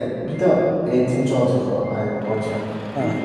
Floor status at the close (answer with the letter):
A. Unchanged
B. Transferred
B